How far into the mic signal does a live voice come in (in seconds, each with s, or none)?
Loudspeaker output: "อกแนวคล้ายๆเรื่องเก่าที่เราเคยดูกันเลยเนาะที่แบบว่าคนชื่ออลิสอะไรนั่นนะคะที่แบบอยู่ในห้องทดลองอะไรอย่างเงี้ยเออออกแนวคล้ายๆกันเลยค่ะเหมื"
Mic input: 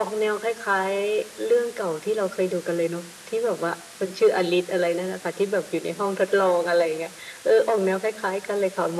none